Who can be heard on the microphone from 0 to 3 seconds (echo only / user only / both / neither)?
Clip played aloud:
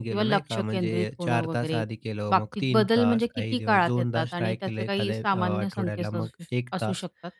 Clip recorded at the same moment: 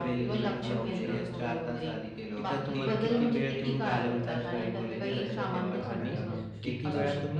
both